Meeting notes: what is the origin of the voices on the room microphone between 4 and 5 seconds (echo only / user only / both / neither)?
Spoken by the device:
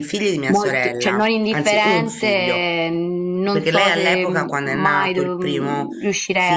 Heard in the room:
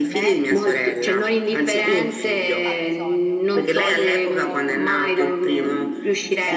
both